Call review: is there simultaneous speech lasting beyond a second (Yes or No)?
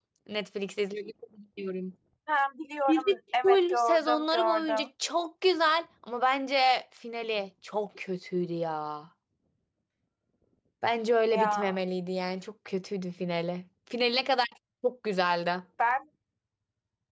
Yes